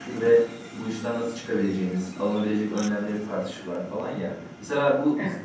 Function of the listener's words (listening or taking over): listening